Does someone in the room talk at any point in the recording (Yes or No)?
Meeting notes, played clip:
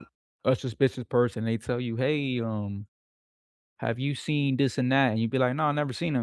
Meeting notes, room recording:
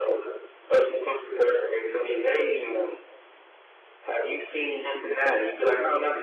No